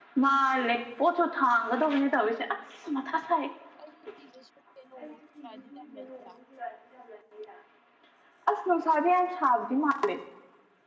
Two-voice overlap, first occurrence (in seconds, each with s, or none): none